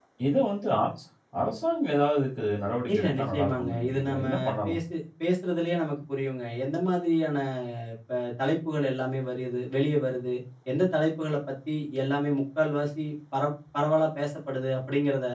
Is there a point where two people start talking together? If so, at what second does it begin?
2.9 s

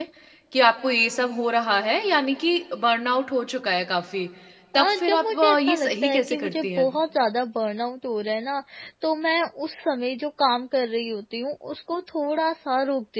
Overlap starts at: 4.8 s

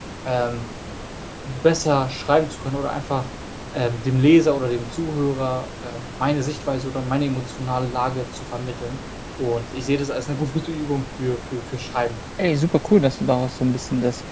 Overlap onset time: none

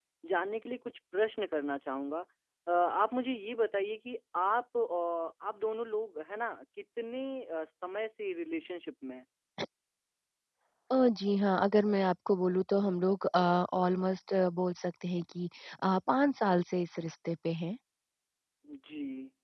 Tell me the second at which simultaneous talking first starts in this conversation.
none

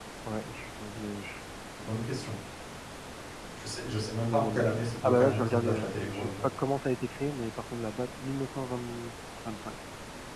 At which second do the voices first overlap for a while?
4.3 s

